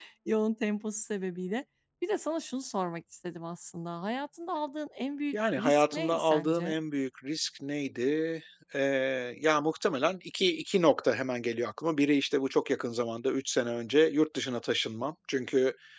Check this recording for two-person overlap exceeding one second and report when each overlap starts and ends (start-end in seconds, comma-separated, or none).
5.3-6.7